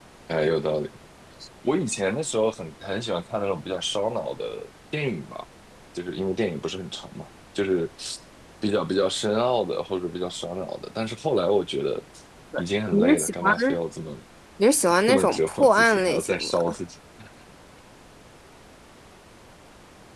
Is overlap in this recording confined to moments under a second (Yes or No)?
No